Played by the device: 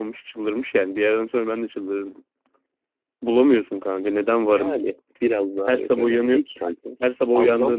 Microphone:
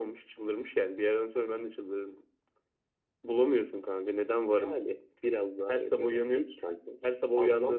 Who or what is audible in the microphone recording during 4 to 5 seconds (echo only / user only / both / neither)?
echo only